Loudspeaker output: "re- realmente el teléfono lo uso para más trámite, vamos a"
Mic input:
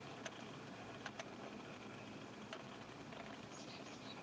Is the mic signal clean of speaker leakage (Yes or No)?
Yes